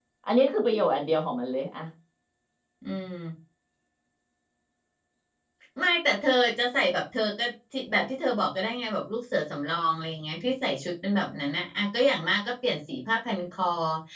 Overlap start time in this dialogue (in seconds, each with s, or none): none